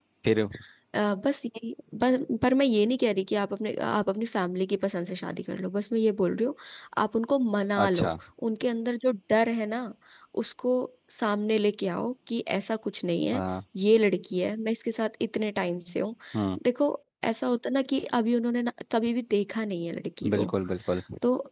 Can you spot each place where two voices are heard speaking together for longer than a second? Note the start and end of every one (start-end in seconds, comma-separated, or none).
none